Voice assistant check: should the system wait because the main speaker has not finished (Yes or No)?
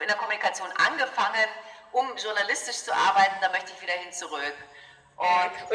No